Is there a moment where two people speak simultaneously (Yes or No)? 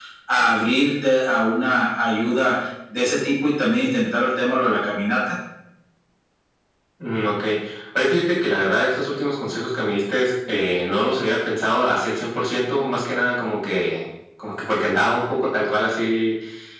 No